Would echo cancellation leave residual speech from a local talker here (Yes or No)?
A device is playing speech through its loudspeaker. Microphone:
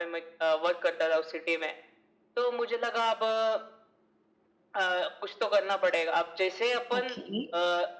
Yes